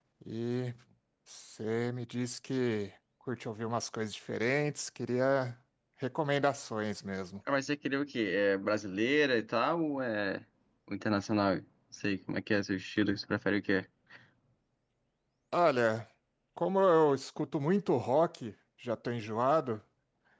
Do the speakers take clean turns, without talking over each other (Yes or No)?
Yes